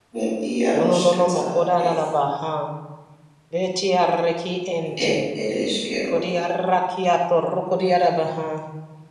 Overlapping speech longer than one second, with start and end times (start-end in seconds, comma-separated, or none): 0.8-2.0